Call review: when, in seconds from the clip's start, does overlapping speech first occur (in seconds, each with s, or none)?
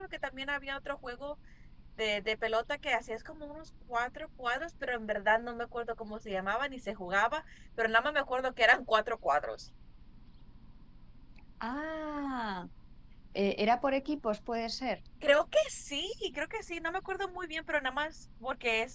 none